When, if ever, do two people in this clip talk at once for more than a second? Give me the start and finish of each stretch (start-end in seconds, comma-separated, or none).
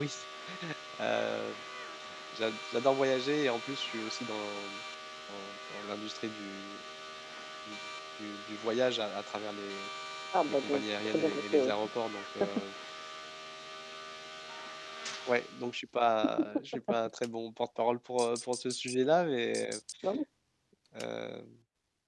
10.5-11.7